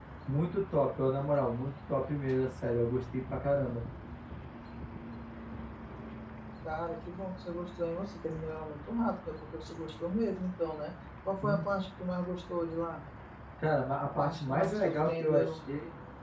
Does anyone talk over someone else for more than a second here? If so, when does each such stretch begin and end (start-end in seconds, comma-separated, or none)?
14.2-15.6